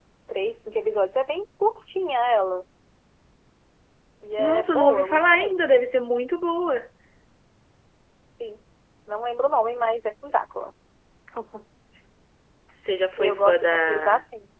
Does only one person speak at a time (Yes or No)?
No